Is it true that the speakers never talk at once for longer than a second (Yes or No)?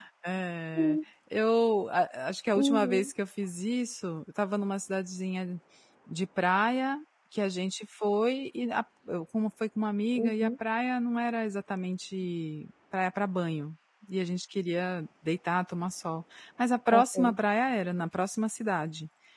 Yes